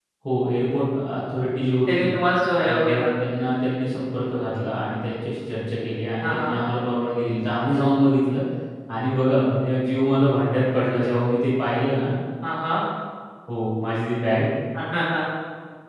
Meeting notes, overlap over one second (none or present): none